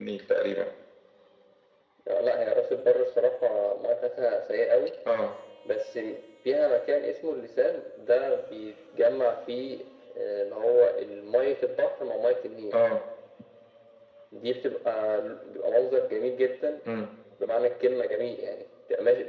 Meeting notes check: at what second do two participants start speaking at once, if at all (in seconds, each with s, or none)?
none